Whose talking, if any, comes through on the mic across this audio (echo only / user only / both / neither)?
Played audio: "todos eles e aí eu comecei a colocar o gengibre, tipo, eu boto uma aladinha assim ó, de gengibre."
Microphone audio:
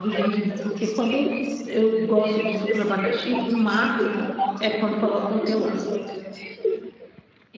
both